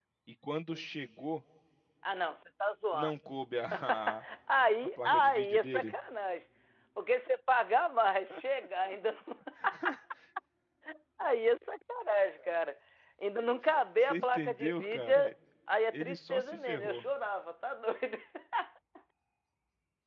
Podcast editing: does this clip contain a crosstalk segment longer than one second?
Yes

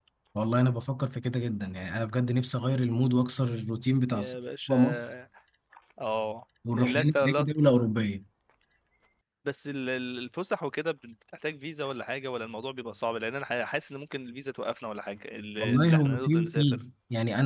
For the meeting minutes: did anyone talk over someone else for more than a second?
Yes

